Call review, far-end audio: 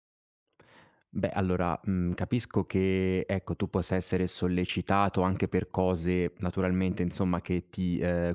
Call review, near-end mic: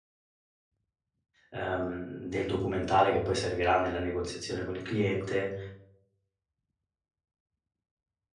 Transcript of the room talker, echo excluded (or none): ehm, del documentale che poi servirà nella negoziazione con il cliente,